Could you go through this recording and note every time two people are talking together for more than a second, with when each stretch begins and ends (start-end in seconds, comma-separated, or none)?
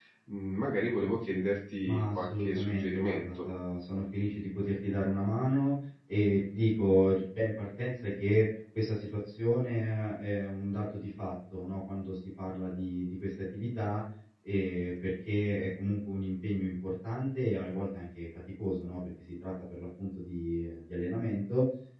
1.8-3.4